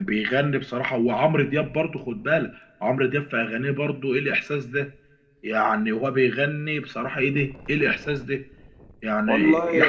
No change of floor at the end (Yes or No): Yes